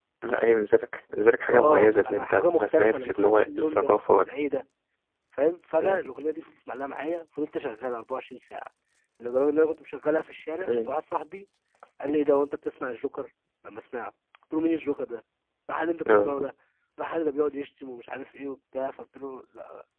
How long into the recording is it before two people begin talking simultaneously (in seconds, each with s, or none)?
1.5 s